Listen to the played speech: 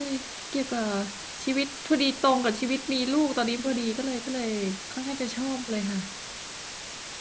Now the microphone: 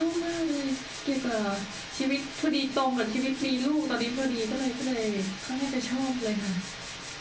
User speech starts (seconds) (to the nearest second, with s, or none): none